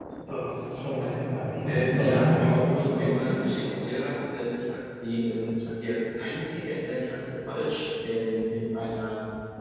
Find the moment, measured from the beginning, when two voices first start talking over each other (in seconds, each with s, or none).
1.6 s